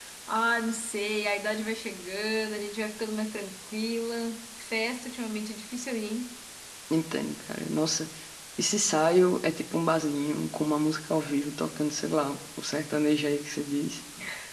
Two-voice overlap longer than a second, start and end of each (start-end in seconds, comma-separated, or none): none